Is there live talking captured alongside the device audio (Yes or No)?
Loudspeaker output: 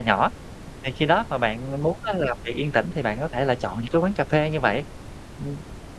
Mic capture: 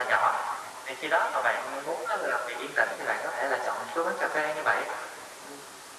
No